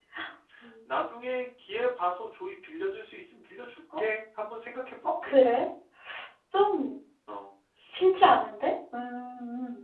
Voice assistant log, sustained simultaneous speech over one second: none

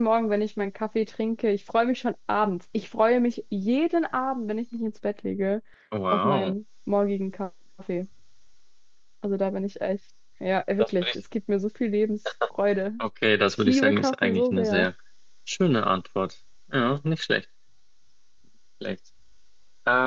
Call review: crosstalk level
present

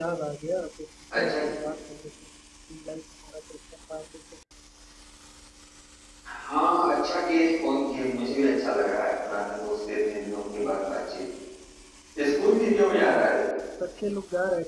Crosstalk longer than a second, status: none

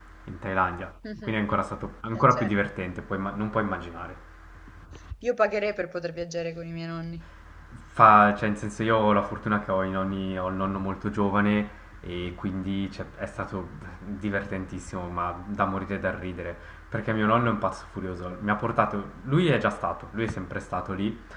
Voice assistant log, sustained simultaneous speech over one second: none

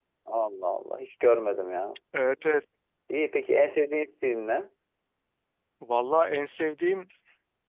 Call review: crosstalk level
none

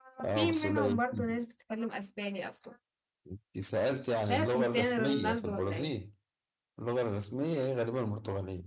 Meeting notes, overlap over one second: present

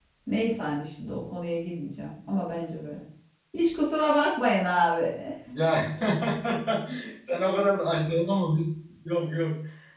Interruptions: none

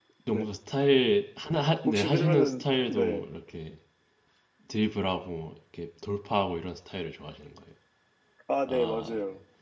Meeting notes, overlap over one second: present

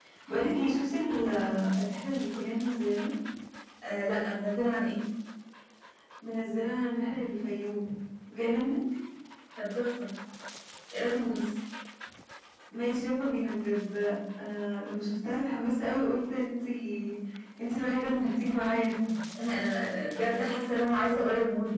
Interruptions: none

